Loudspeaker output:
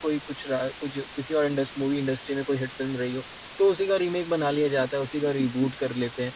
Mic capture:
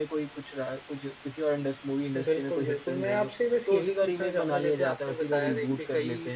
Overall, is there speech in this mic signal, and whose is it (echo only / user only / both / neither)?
both